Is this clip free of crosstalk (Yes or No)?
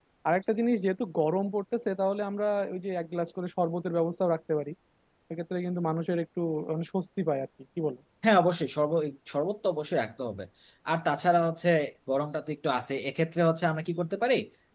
Yes